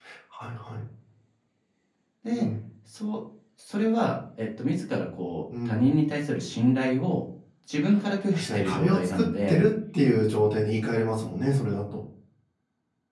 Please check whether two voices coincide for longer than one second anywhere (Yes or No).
Yes